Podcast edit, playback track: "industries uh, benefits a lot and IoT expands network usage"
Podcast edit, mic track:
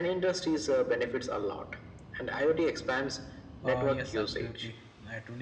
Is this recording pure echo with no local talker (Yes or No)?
No